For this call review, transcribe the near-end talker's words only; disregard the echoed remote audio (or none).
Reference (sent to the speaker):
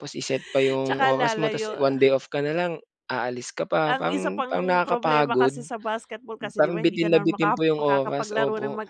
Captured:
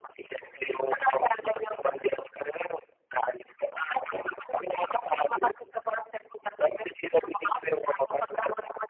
none